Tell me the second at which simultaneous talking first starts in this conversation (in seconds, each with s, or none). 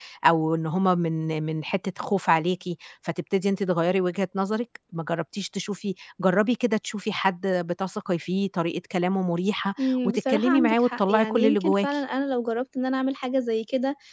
9.8 s